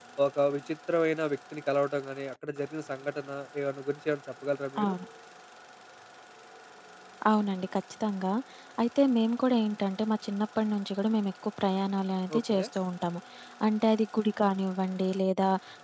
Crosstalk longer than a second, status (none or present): none